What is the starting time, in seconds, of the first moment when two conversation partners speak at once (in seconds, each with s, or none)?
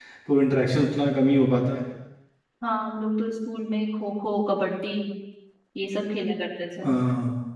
none